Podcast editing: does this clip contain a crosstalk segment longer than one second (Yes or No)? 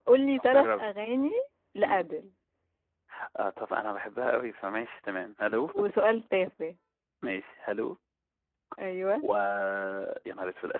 No